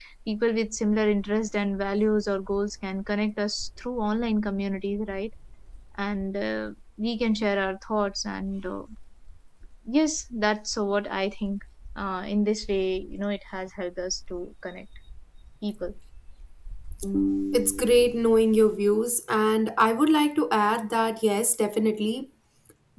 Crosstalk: none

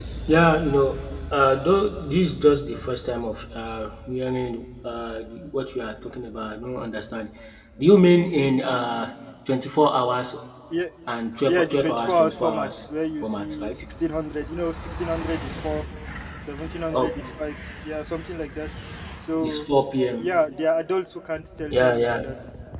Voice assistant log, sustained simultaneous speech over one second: present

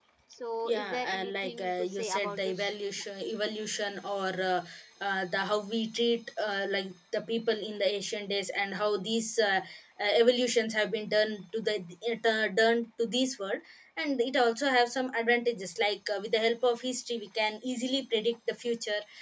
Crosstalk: present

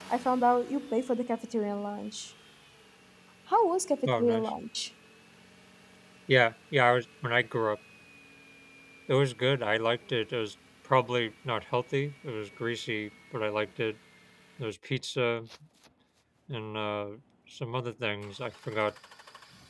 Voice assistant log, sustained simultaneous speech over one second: none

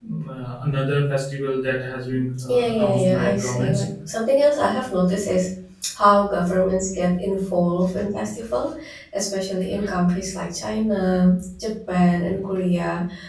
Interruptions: present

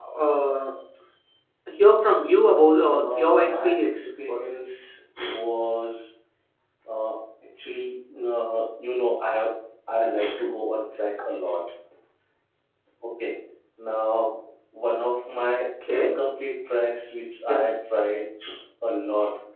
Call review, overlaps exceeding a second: present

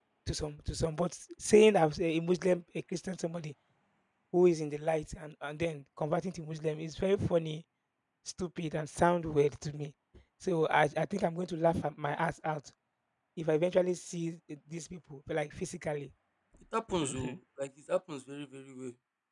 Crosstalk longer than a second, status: none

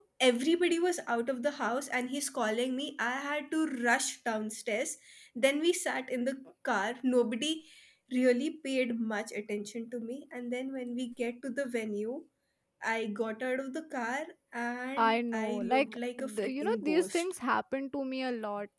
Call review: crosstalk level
present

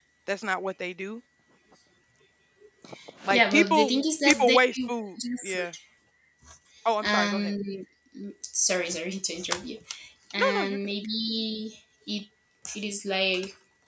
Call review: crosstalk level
present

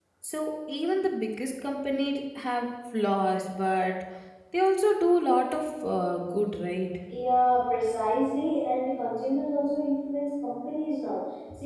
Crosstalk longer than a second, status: none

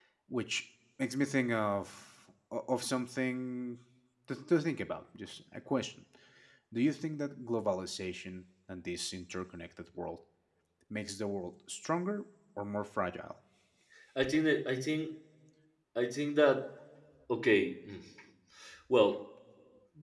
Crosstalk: none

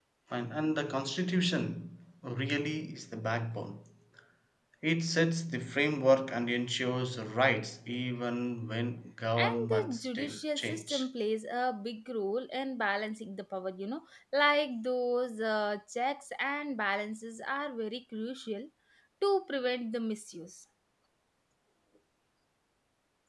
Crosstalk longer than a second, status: present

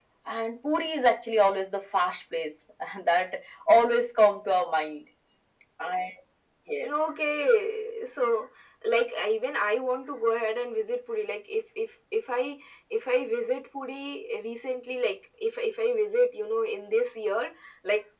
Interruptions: none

